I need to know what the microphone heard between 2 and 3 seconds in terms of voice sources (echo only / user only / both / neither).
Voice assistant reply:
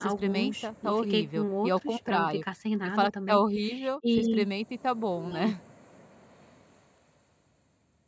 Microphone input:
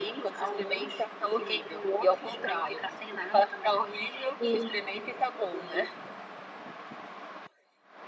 echo only